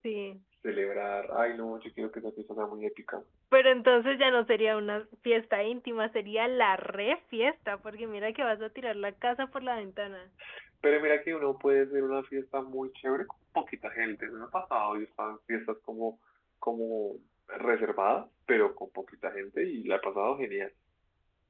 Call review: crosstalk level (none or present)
none